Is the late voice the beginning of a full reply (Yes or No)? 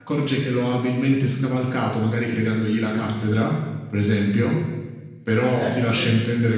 No